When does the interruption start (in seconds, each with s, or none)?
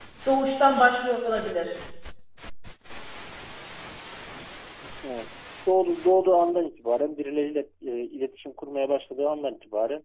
none